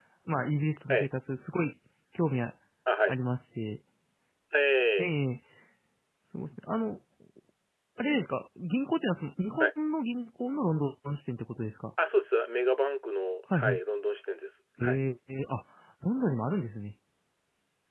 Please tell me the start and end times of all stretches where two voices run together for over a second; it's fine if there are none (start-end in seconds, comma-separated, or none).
none